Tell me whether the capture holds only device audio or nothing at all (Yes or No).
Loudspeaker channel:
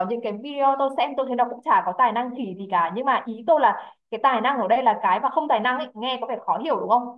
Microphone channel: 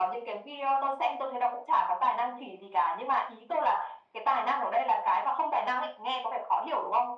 Yes